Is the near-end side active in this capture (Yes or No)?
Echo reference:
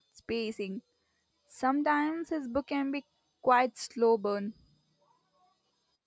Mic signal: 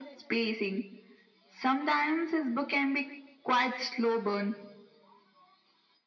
No